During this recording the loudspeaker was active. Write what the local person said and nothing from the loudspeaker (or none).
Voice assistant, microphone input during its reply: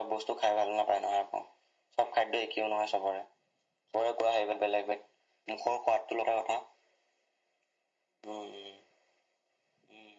none